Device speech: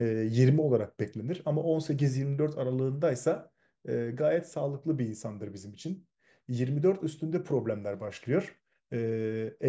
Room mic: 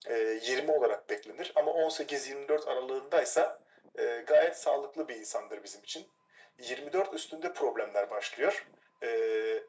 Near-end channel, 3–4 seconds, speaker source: echo only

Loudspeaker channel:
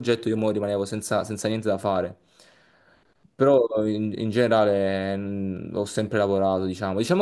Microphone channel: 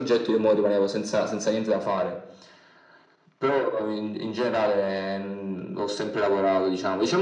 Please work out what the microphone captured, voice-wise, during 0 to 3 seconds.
echo only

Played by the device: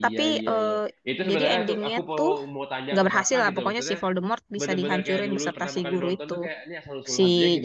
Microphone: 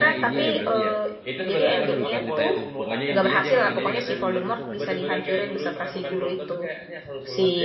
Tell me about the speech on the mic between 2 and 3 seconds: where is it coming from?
both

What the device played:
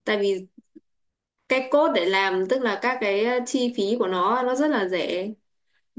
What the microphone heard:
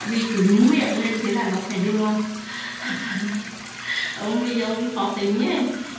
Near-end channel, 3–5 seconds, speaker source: user only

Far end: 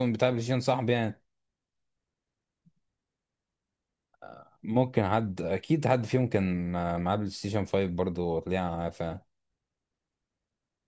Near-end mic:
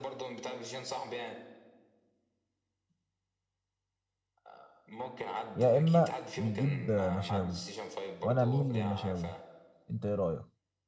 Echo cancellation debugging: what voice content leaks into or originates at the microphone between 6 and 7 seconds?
both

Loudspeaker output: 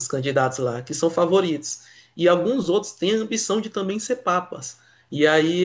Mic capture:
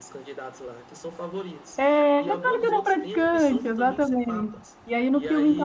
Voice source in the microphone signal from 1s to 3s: both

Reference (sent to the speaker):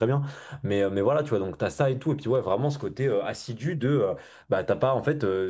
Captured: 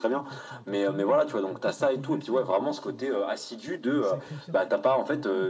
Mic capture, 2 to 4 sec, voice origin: both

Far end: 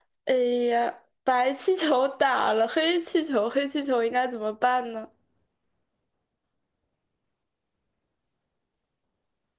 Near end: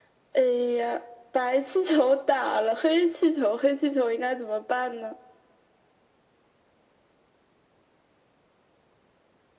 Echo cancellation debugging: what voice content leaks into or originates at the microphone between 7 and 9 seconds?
neither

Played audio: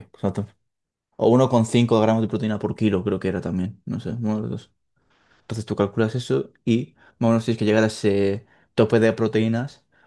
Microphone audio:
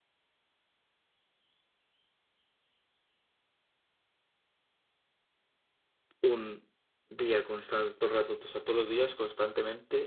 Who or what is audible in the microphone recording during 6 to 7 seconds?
user only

